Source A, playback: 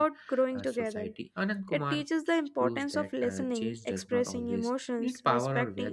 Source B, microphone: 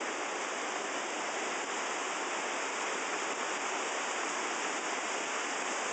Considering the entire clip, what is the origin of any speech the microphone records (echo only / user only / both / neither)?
neither